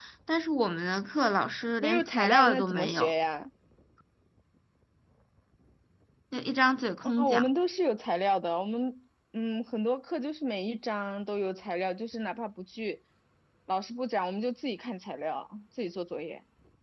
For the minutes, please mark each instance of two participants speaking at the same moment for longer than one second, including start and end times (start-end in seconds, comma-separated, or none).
1.8-3.1